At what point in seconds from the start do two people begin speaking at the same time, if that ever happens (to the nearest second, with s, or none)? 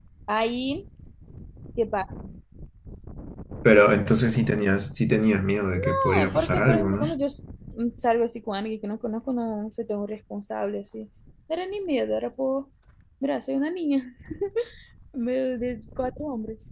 6 s